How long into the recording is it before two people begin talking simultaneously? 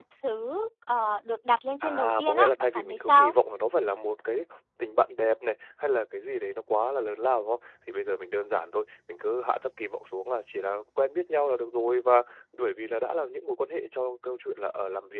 1.8 s

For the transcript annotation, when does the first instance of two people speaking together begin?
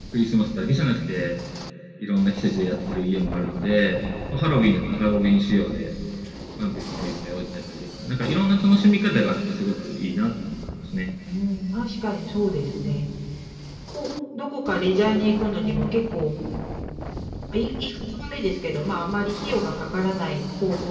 none

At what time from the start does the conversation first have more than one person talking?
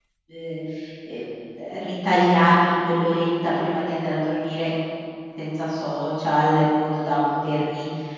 none

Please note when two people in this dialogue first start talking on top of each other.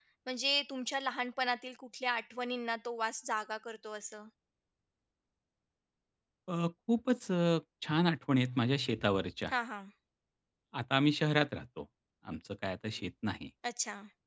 none

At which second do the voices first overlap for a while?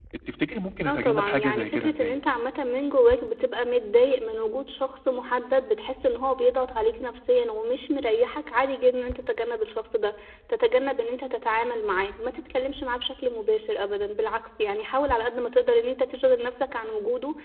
0.9 s

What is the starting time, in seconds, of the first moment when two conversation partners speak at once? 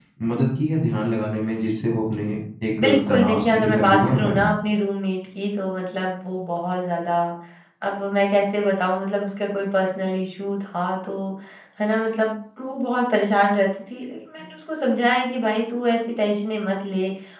2.8 s

